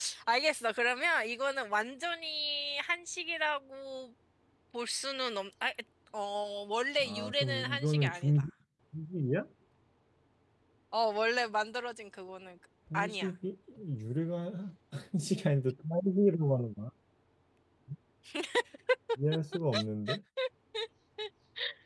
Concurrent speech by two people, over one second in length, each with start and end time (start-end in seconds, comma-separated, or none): 7.0-8.3